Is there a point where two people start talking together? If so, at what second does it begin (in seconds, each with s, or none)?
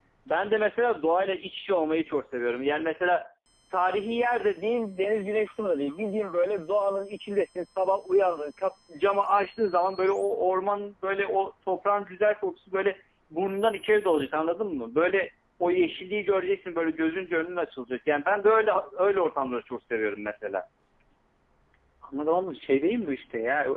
none